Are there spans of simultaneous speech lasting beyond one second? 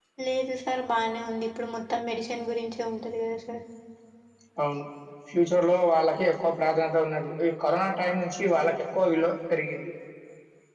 No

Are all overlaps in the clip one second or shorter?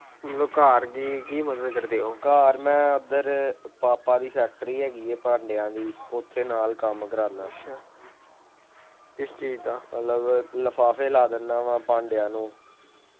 Yes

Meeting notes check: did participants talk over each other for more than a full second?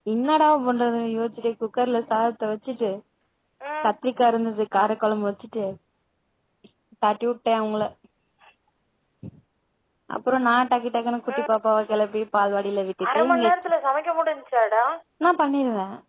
No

